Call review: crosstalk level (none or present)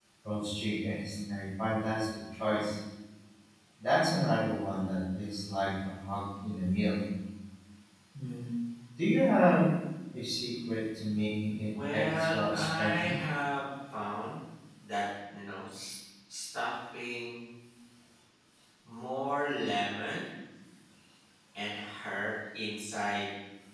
present